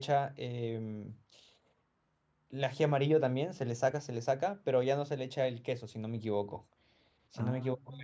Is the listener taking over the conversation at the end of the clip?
No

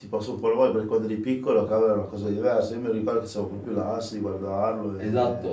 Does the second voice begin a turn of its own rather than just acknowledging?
Yes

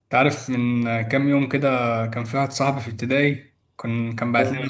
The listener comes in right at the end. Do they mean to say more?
No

